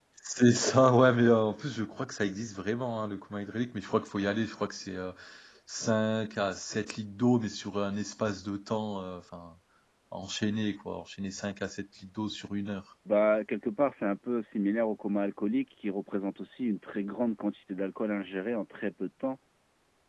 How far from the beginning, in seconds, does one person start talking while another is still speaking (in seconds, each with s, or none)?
none